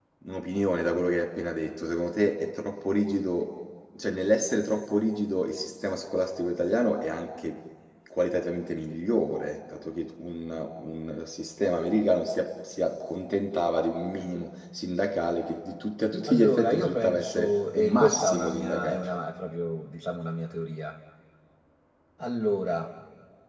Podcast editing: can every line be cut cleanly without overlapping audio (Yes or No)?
No